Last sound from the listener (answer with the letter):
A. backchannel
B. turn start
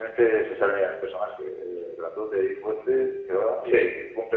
A